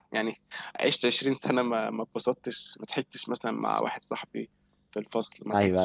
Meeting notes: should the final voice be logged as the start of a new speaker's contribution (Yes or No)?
No